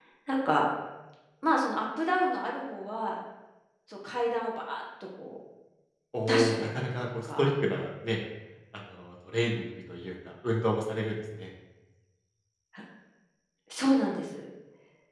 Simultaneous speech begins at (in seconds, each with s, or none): 6.3 s